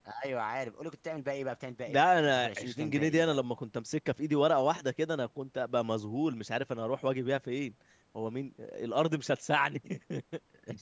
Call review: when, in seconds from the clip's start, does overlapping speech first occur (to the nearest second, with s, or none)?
2 s